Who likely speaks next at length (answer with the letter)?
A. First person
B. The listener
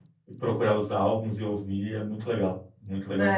B